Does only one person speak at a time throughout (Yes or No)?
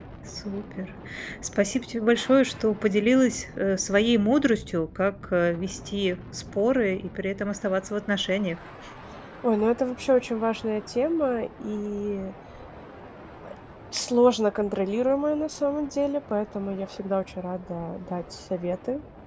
Yes